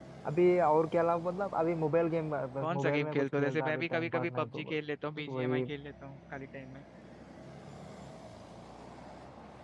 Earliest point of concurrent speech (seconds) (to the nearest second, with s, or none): 3 s